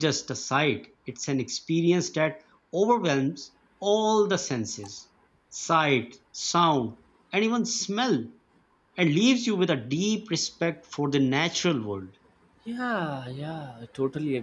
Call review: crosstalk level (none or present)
none